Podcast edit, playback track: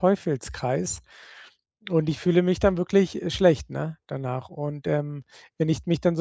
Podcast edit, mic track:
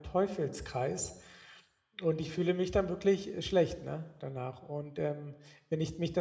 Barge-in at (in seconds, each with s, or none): none